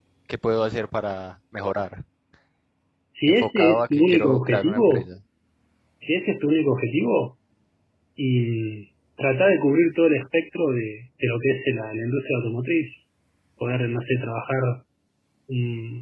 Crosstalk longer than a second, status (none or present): present